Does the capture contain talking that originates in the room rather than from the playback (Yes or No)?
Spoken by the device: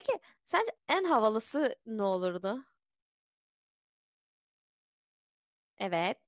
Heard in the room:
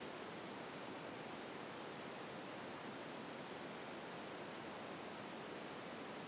No